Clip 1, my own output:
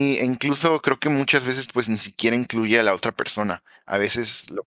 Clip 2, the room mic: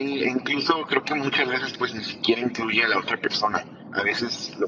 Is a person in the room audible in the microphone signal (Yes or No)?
No